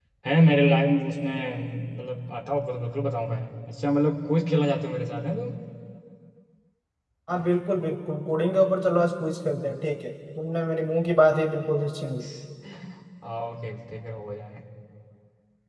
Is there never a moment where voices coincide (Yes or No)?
Yes